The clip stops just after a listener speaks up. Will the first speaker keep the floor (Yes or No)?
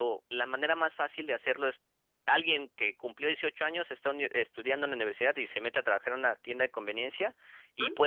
Yes